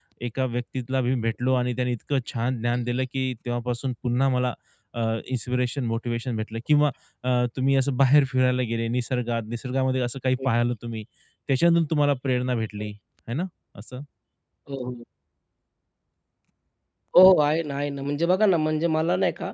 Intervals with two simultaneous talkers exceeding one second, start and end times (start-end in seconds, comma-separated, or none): none